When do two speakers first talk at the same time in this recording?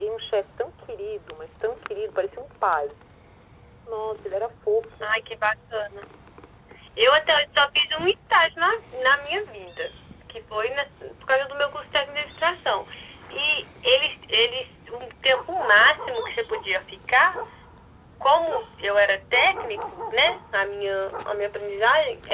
none

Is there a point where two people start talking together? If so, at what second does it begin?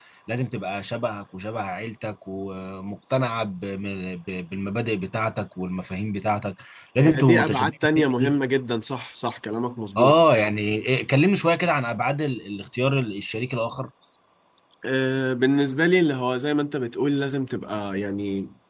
7 s

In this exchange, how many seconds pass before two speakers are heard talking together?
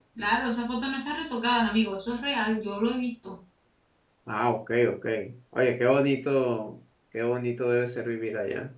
none

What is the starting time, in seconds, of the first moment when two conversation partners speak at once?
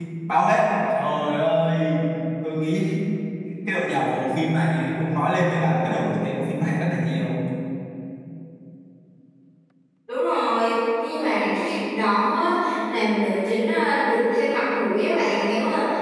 none

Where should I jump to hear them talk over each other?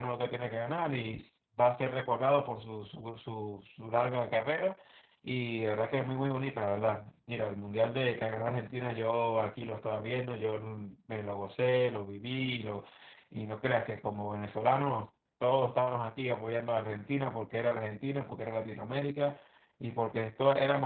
none

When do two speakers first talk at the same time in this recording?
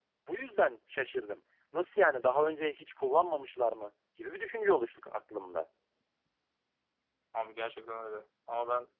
none

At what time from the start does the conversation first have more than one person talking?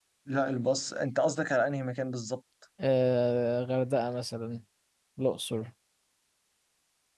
none

